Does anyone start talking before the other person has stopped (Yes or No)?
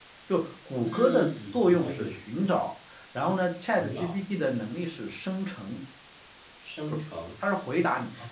Yes